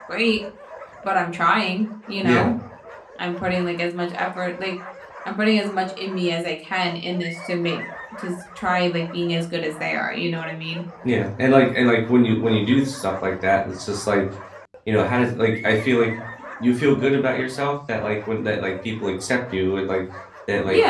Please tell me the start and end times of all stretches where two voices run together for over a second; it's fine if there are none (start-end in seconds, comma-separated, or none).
none